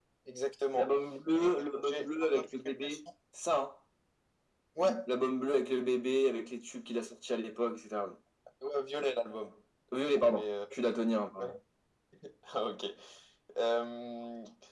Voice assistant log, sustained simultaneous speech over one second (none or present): present